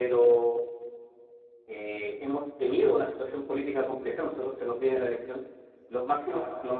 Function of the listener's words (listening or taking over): listening